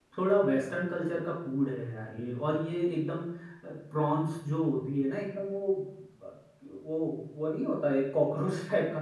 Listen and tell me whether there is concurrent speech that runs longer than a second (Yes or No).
No